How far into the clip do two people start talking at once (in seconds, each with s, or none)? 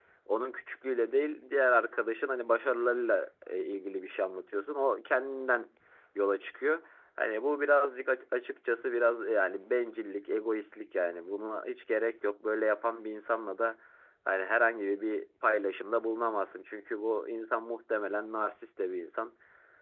none